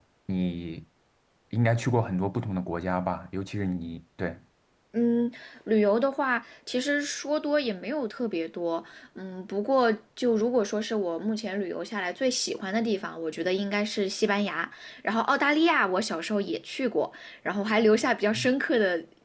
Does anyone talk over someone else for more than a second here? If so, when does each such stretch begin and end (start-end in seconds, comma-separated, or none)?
none